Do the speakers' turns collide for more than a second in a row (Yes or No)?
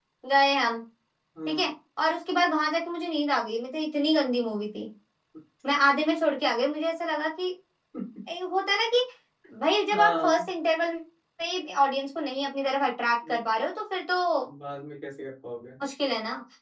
No